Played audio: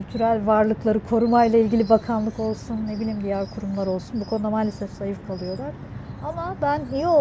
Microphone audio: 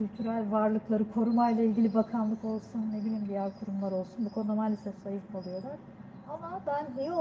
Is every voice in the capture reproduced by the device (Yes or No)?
Yes